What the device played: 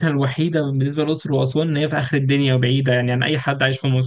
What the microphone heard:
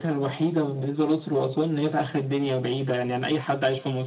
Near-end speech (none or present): none